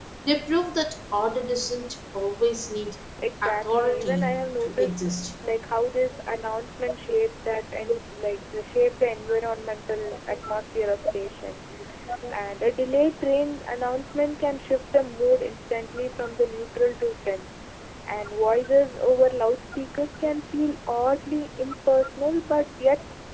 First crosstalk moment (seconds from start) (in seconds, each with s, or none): 3.4 s